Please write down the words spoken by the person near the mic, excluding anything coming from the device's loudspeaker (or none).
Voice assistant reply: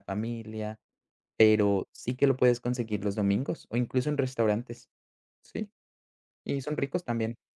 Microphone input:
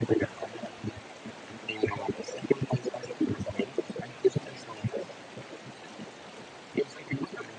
none